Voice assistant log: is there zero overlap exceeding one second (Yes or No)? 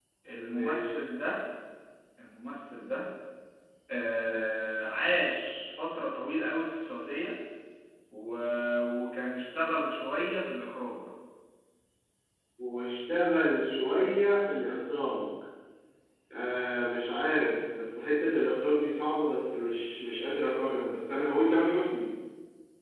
Yes